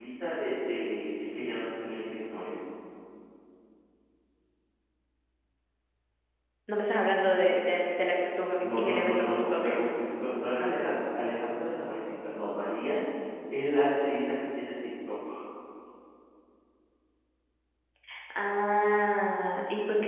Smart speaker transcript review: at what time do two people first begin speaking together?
9 s

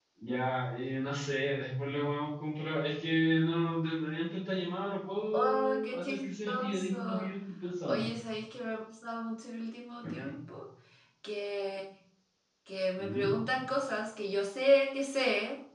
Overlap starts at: 5 s

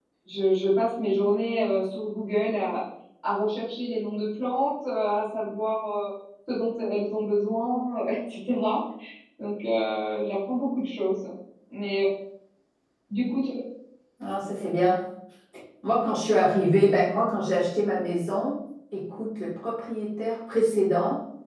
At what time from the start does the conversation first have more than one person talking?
none

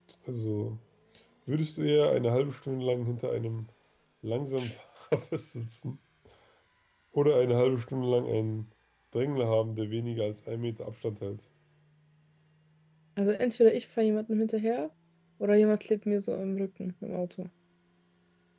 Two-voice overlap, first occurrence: none

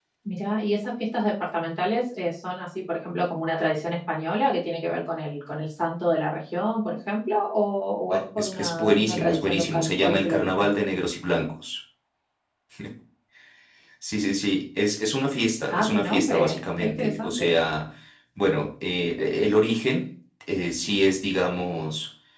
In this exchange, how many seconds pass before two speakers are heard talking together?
8 s

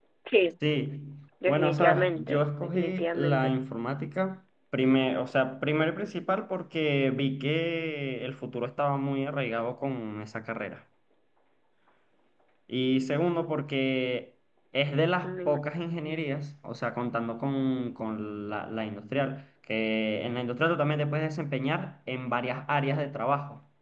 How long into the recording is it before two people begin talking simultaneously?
1 s

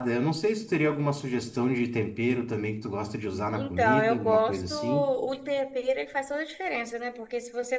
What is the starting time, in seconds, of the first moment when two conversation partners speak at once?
4 s

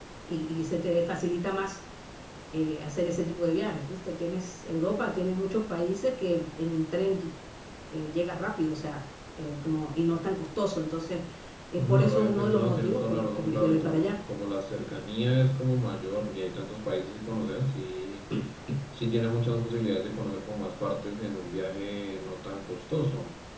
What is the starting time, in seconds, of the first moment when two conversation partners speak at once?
12 s

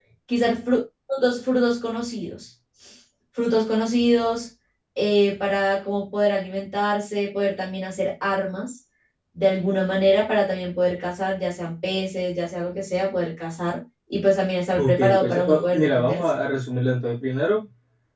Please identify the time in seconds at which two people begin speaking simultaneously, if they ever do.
15 s

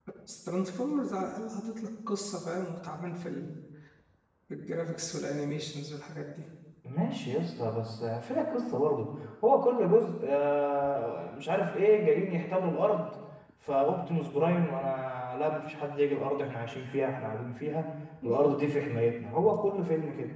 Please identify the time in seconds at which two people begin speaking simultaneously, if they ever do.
none

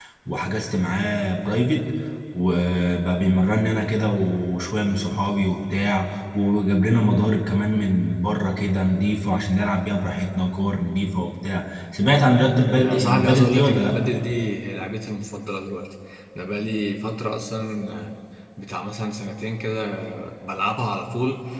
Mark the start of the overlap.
13 s

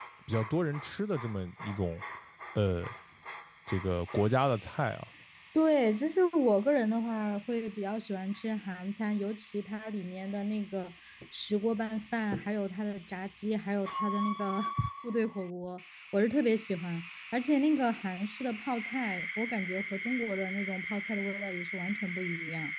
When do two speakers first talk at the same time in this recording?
none

